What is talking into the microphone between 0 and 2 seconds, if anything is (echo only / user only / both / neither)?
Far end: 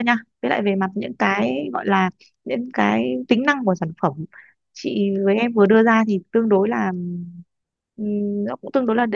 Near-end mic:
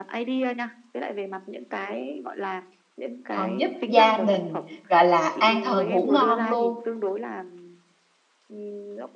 echo only